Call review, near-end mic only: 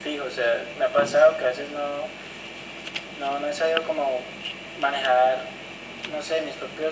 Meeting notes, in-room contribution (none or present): none